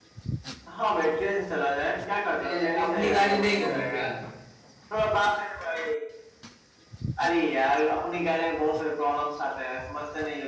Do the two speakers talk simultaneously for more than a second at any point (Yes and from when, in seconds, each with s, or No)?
Yes, from 2.4 s